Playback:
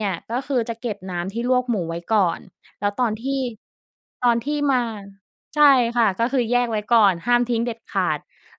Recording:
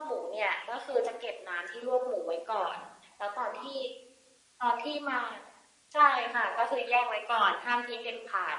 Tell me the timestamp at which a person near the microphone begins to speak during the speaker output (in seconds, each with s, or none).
none